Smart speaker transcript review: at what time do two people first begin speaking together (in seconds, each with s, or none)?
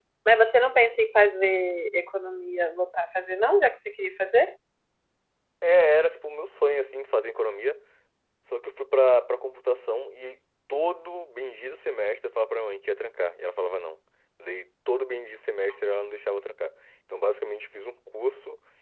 none